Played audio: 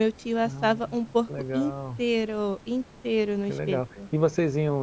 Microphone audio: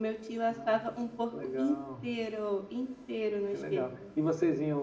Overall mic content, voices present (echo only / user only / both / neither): echo only